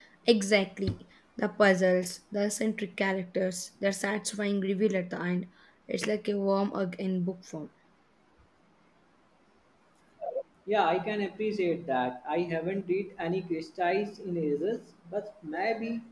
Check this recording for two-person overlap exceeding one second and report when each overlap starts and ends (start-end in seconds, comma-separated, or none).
none